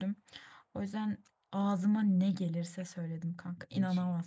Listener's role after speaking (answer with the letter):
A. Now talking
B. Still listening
A